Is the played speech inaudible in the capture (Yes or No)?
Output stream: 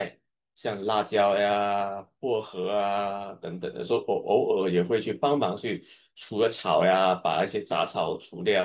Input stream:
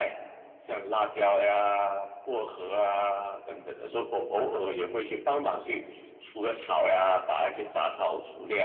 No